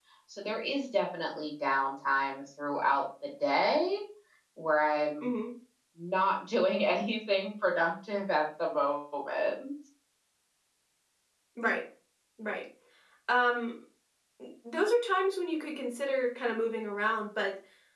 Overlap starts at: none

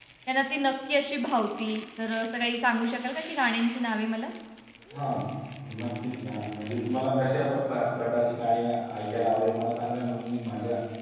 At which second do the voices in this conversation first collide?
none

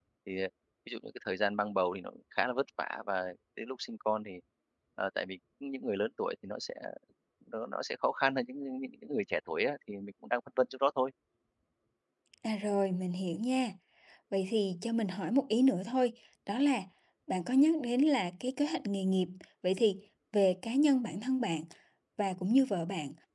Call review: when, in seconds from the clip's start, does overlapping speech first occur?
none

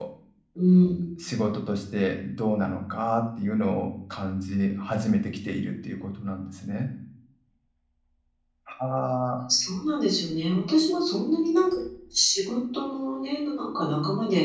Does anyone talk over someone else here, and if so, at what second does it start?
none

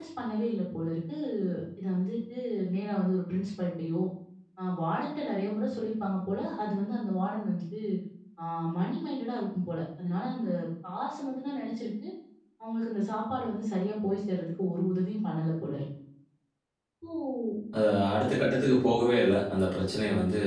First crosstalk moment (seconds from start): none

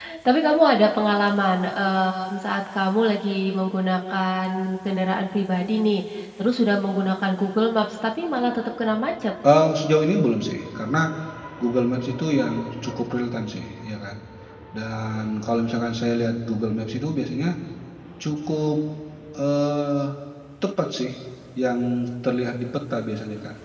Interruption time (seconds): none

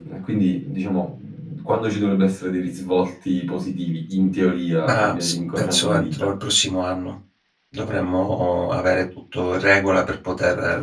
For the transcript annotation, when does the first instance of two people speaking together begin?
5 s

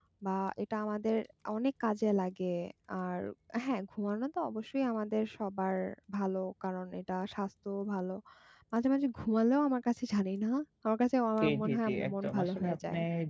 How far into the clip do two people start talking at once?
11 s

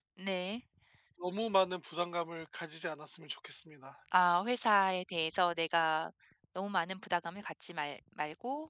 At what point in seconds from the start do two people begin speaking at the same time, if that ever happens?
none

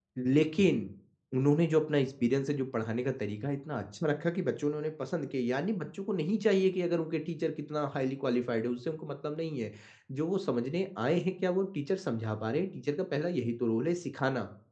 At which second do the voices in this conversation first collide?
none

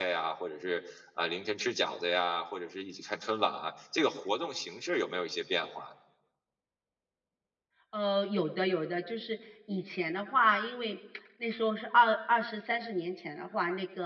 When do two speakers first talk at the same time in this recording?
none

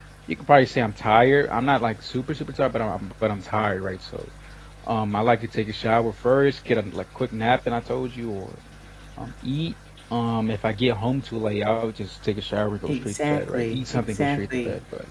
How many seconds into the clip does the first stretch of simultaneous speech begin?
13 s

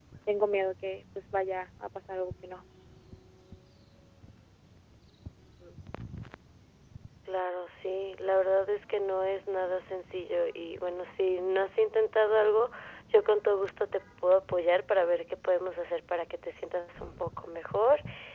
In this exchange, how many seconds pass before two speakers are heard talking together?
none

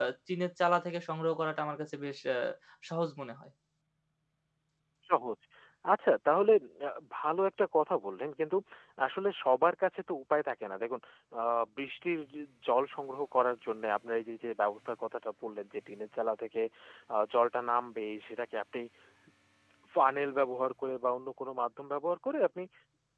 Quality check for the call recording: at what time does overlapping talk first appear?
none

